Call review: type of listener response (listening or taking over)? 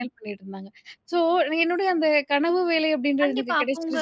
taking over